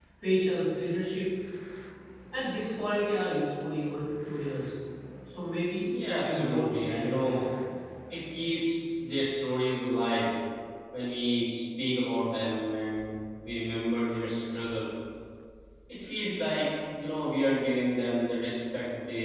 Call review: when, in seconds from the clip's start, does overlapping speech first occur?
6.2 s

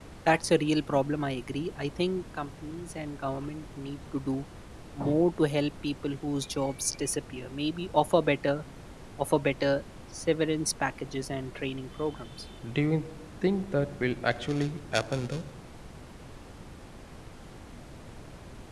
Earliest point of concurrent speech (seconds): none

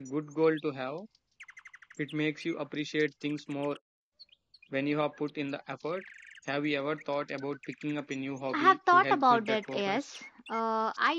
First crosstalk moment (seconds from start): 8.5 s

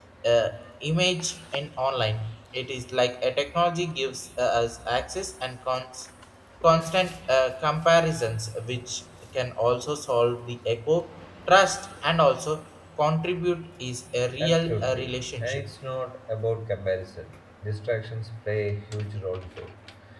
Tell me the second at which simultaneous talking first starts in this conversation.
14.4 s

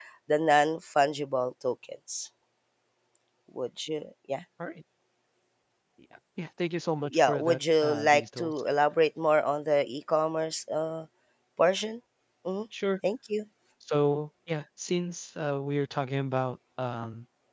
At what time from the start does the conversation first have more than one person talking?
7.1 s

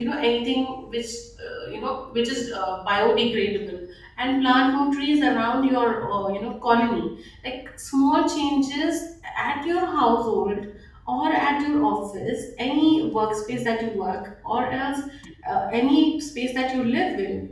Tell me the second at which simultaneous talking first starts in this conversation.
none

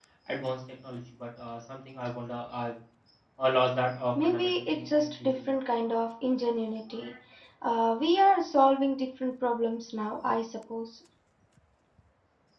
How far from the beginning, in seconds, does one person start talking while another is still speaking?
4.2 s

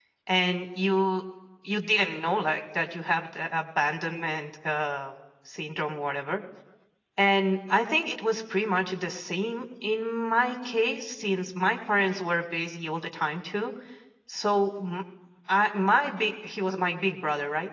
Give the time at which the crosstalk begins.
none

